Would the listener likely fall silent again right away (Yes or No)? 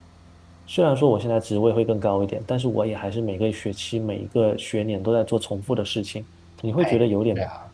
Yes